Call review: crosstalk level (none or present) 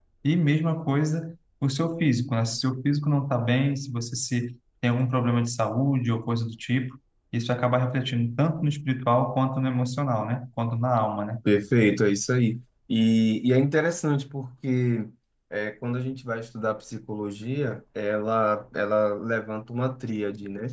none